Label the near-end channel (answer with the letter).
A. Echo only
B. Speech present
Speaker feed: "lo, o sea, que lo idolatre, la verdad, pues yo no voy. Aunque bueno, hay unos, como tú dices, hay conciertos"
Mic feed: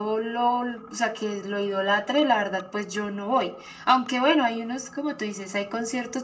A